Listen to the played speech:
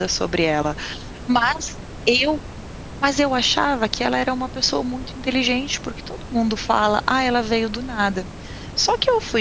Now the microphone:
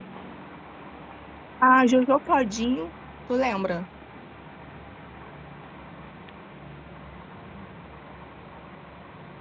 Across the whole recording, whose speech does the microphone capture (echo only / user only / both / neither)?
user only